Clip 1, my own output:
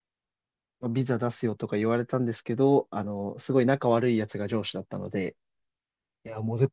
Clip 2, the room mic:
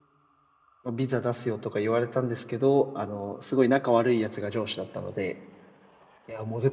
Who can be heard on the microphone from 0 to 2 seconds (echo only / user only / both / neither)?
echo only